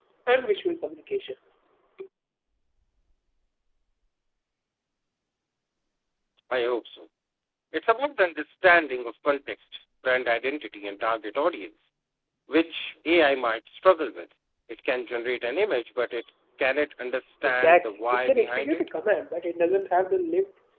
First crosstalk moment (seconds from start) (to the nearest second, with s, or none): 17 s